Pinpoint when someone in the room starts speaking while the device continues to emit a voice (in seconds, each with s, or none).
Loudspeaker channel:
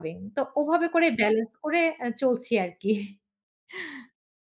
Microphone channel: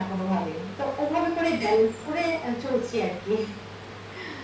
none